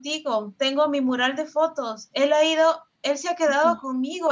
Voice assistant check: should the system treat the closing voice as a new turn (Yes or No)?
No